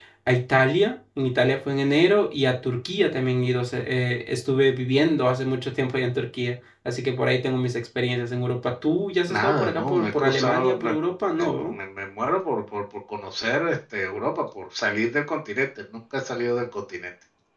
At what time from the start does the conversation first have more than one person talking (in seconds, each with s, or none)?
9.3 s